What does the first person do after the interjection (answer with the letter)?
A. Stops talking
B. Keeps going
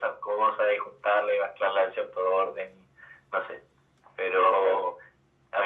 B